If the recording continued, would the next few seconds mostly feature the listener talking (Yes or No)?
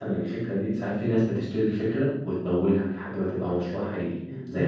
No